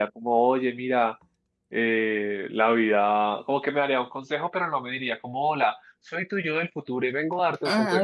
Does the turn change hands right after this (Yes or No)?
Yes